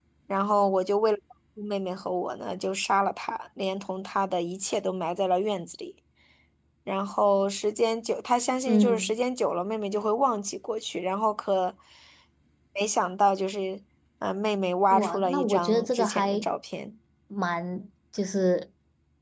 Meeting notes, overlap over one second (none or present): present